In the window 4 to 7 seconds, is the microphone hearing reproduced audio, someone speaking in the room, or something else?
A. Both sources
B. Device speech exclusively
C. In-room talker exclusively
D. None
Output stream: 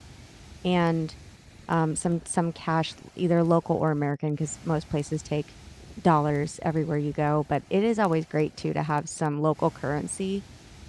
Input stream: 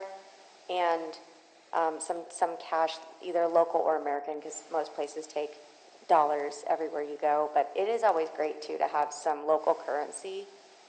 B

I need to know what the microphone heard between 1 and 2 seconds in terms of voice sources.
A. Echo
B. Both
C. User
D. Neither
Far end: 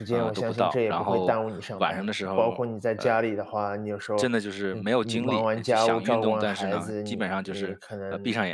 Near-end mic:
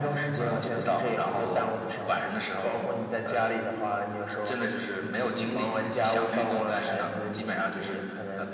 A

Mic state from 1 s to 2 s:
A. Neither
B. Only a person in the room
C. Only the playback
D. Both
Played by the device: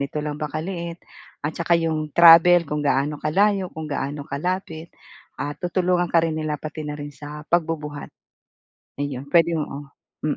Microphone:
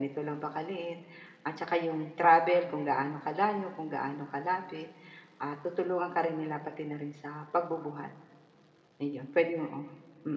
C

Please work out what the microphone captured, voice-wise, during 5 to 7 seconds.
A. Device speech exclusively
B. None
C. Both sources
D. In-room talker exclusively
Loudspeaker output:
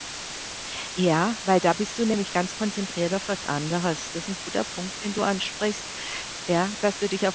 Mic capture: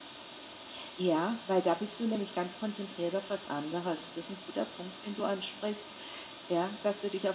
A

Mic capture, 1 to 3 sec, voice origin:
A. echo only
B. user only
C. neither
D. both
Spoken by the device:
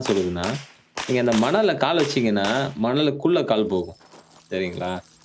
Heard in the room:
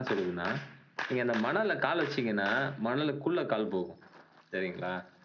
A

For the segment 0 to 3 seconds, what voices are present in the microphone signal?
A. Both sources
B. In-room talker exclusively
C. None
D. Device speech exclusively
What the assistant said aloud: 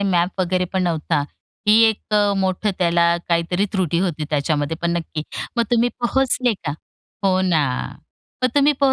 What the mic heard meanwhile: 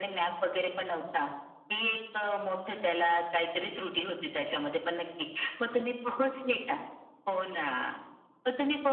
D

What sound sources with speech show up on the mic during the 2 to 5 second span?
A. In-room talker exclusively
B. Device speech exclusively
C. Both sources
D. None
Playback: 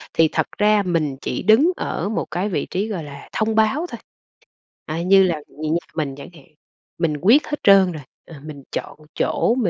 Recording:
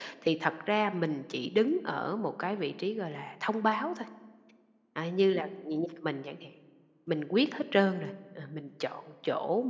B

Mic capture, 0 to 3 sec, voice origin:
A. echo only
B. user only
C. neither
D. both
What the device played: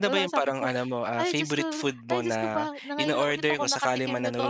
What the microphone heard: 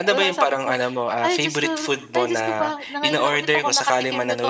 A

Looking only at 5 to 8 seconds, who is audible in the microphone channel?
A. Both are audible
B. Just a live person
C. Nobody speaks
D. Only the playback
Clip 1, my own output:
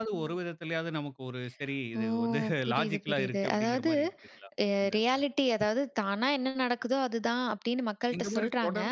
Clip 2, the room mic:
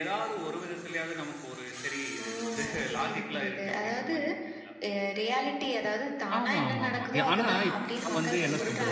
A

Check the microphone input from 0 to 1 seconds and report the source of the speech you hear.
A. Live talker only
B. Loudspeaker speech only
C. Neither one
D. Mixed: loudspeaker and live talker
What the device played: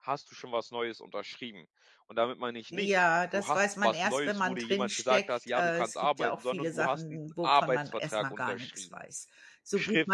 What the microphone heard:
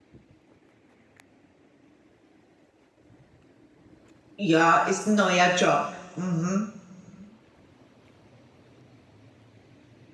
C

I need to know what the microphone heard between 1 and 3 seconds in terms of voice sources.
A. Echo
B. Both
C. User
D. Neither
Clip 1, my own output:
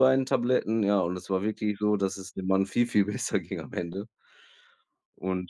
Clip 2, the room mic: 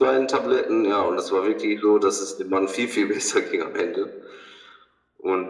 A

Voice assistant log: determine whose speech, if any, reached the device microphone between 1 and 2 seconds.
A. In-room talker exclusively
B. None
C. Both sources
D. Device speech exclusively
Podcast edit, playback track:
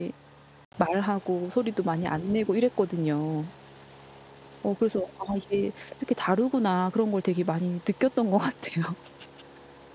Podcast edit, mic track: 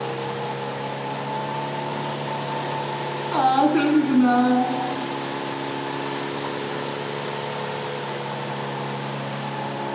B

